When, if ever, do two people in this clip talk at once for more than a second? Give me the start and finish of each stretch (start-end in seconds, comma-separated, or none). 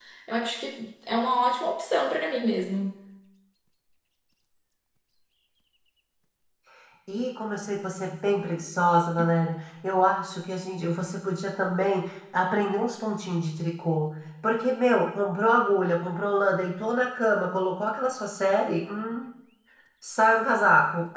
none